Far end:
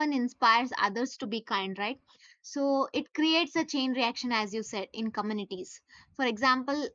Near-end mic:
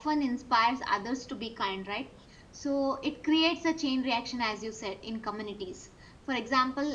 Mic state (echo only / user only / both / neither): echo only